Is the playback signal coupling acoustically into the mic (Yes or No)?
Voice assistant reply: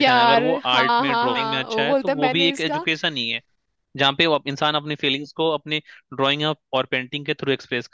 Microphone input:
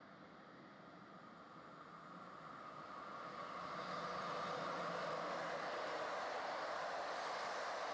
No